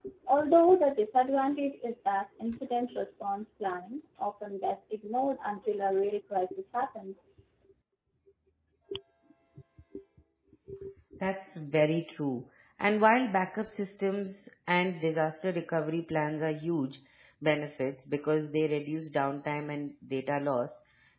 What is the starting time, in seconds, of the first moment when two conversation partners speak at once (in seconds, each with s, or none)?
none